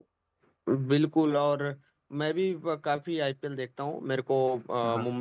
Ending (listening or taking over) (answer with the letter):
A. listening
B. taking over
A